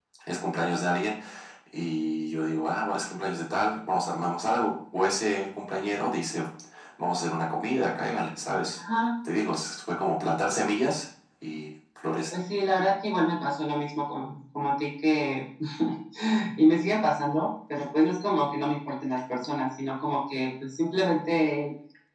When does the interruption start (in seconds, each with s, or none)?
none